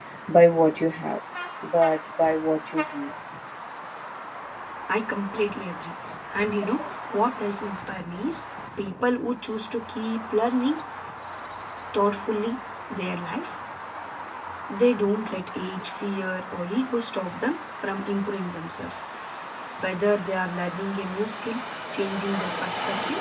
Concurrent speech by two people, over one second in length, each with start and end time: none

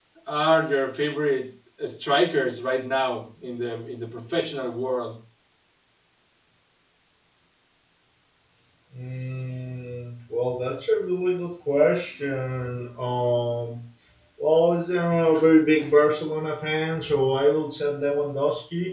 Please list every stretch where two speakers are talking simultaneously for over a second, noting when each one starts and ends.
none

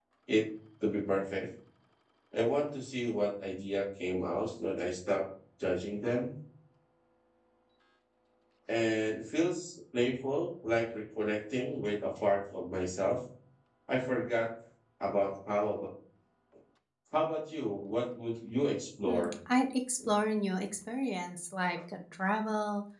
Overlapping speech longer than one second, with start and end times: none

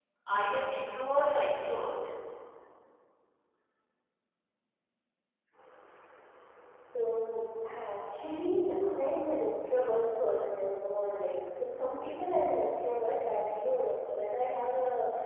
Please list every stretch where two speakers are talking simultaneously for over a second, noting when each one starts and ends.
none

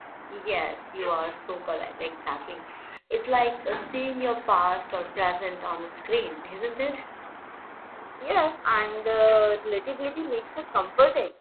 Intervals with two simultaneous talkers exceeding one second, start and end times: none

